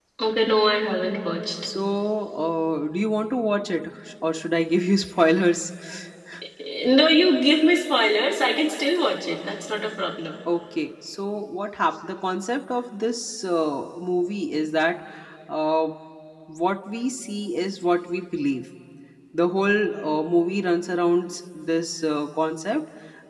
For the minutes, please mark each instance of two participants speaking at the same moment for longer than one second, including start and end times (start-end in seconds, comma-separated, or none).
none